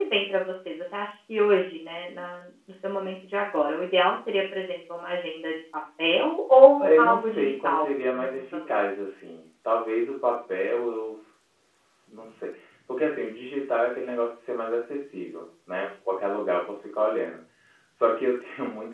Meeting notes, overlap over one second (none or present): present